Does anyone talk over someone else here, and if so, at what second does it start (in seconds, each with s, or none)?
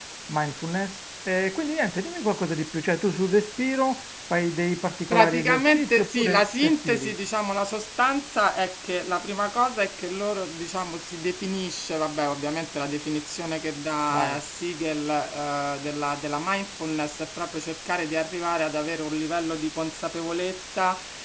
5.1 s